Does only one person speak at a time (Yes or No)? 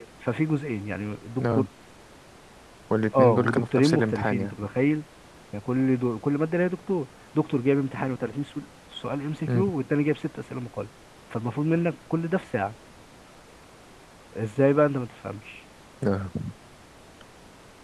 No